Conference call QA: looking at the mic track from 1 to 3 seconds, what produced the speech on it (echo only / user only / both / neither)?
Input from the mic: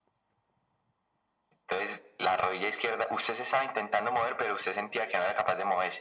echo only